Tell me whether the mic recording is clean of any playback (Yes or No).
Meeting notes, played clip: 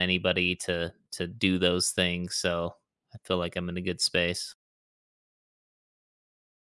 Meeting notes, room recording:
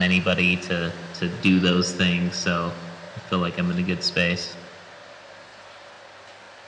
No